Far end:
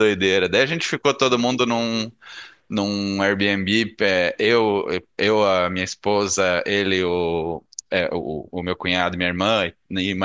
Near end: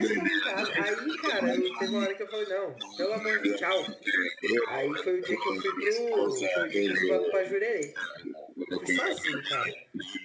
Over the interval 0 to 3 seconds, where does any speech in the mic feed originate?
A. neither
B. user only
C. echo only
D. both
D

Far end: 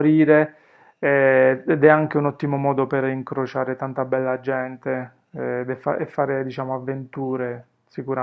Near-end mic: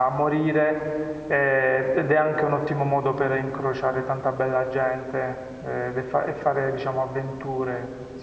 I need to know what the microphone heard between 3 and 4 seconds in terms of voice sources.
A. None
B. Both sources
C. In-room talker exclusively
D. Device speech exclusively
D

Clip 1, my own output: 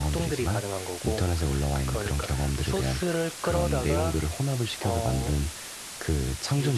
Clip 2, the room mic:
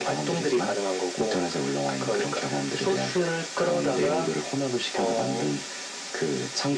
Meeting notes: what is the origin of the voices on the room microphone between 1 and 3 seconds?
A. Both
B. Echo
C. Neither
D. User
B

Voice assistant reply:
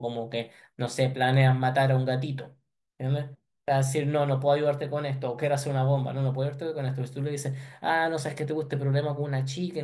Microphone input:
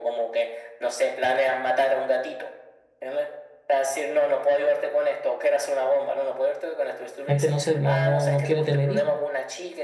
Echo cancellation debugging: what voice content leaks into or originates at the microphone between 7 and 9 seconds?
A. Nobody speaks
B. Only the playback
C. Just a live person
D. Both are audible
D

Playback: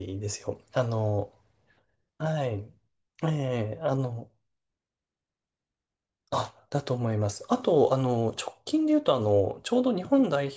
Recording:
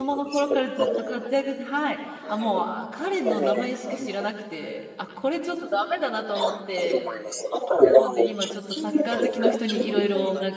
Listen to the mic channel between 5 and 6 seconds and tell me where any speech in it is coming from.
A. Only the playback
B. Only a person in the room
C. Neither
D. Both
B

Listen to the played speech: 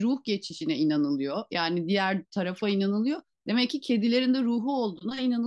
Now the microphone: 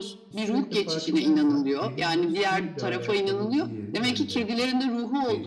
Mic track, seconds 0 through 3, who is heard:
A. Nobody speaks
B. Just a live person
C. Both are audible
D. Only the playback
C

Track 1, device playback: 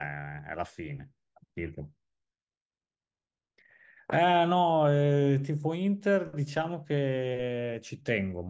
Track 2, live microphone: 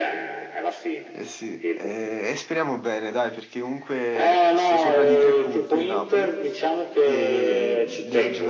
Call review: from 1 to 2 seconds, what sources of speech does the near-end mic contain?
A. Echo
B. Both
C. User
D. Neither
B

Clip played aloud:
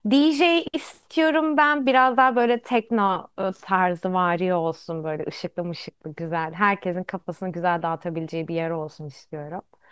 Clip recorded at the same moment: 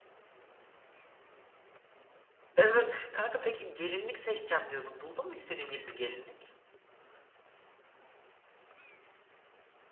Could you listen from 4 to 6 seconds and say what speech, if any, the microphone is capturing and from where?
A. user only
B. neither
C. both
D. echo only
A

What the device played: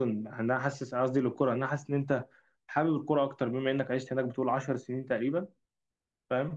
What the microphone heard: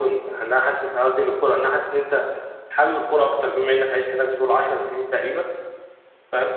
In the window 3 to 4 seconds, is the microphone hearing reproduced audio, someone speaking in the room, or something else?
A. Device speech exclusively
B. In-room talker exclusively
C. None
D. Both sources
A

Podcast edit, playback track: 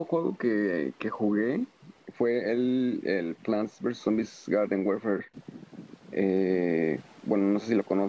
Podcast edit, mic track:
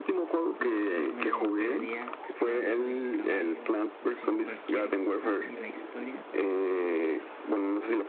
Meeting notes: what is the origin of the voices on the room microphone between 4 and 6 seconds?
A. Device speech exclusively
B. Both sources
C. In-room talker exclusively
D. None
B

